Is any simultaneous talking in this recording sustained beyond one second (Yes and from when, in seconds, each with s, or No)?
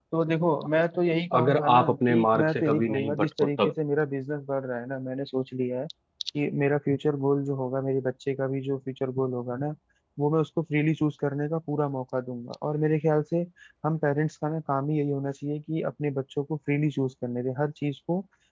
Yes, from 1.3 s